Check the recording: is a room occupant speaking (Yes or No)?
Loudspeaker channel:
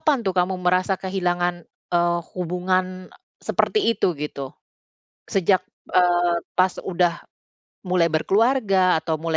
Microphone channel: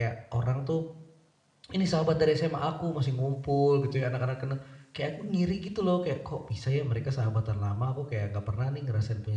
Yes